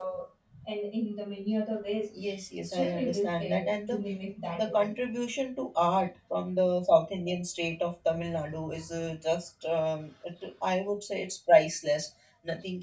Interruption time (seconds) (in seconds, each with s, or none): 2.6 s